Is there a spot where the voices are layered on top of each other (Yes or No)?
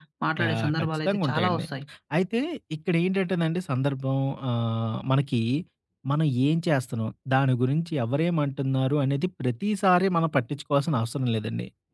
Yes